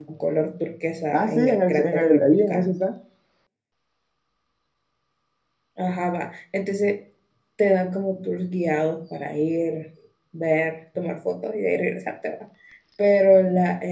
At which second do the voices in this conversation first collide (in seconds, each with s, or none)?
1.1 s